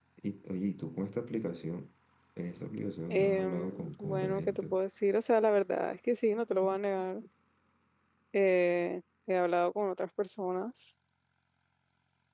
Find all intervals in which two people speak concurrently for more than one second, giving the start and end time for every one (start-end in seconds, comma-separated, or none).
3.1-4.8